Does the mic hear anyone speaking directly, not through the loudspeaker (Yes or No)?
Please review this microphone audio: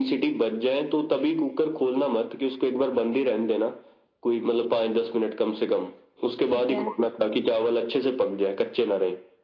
Yes